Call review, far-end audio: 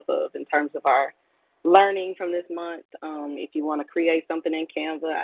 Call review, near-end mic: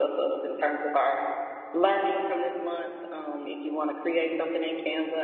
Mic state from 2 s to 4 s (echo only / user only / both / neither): echo only